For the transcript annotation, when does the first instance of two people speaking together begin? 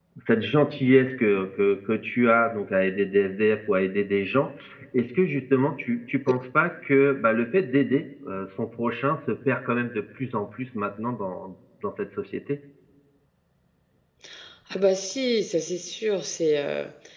none

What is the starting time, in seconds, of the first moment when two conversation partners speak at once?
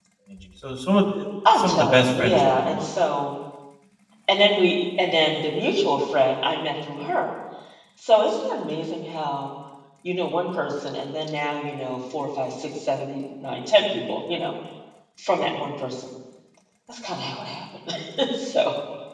1 s

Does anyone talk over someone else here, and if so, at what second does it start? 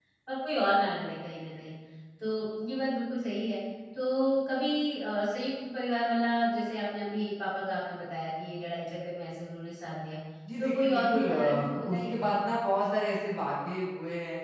11 s

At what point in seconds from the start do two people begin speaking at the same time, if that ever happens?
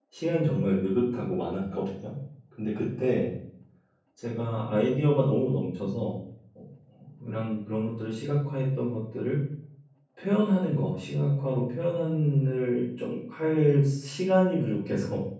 none

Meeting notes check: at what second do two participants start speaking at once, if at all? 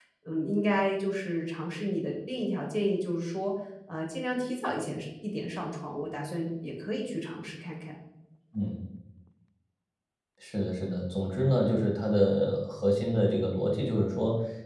none

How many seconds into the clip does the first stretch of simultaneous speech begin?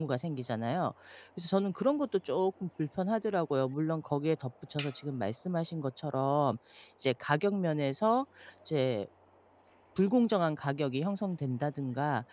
none

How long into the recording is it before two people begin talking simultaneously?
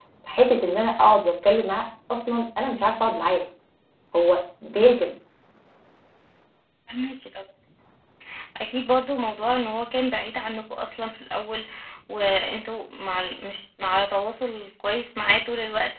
none

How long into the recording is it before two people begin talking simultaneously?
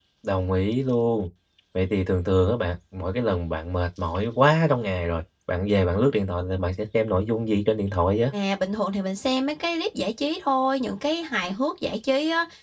none

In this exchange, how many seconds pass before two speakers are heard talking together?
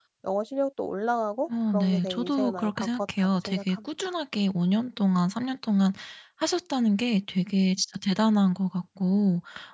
1 s

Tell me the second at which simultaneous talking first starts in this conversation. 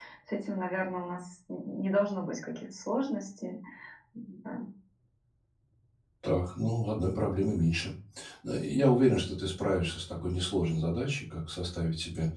none

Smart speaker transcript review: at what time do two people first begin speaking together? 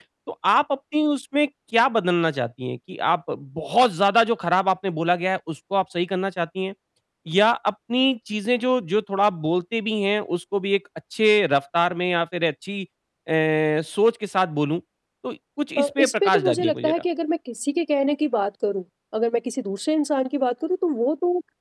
16 s

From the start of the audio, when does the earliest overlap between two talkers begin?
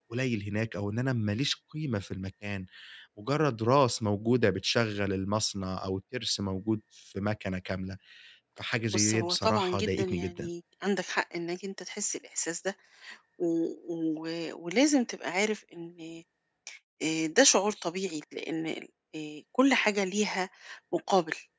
9 s

